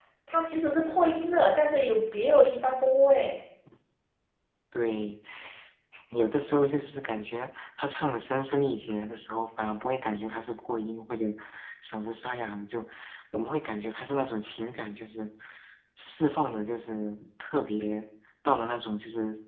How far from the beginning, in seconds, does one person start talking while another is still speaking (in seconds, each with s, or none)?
none